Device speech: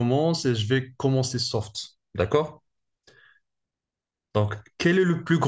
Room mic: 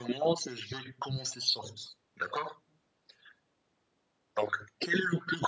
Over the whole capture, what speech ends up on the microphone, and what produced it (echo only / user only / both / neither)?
echo only